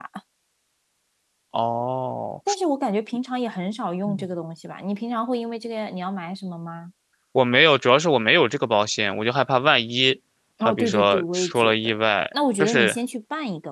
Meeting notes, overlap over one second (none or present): present